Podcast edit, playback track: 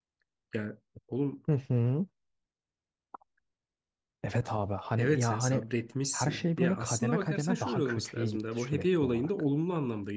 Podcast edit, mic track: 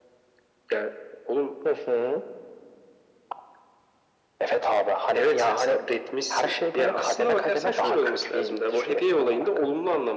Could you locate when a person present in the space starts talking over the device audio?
none

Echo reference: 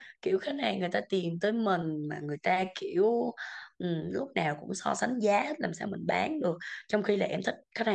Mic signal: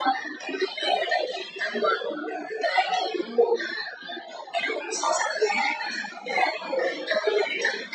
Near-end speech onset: none

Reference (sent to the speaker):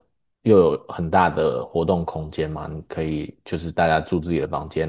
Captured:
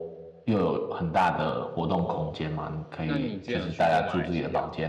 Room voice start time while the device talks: 1.8 s

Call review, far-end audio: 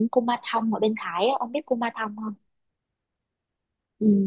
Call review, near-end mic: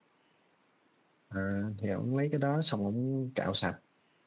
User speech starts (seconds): 1.3 s

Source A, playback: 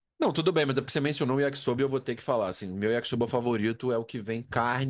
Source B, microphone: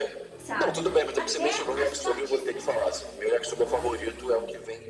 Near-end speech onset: 0.4 s

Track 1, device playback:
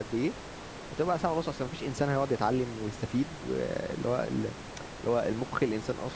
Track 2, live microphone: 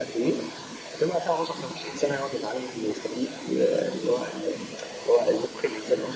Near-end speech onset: none

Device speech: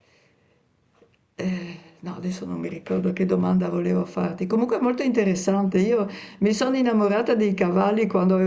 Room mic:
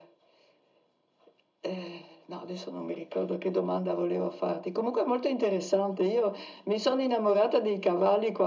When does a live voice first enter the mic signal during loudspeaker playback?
none

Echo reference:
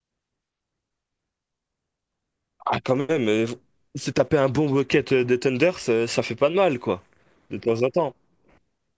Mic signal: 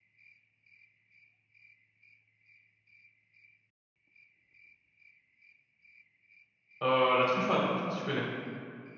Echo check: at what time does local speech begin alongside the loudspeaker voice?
6.8 s

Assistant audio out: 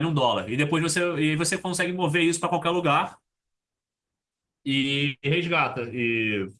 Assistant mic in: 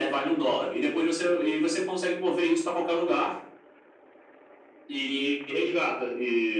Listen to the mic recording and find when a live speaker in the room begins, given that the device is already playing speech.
none

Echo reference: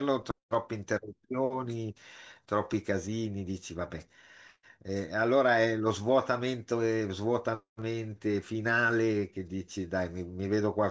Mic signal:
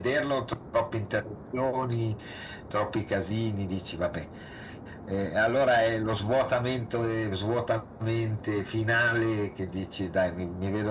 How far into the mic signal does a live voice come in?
none

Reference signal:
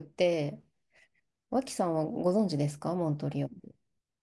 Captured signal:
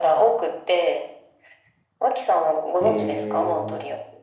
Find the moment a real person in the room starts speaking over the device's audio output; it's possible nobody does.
2.8 s

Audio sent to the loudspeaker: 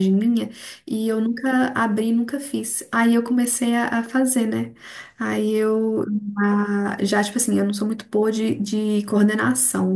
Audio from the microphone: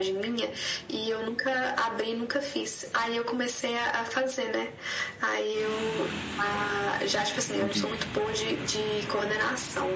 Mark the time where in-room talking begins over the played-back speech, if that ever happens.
7.6 s

